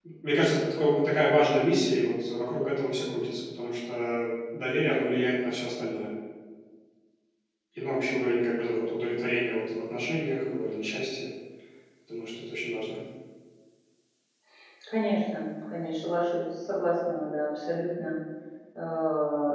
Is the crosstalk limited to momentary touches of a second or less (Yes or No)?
Yes